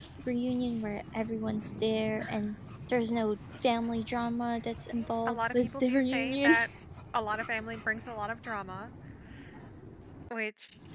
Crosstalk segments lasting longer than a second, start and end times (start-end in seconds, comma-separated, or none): 5.0-6.6